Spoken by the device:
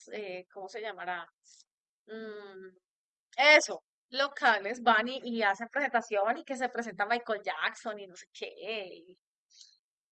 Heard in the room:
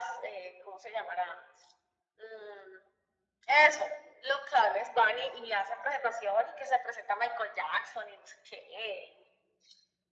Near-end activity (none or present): none